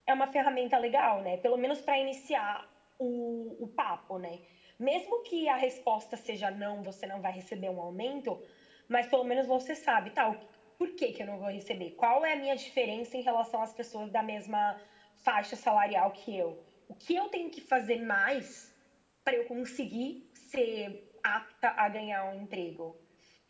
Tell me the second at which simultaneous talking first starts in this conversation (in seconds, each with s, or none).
none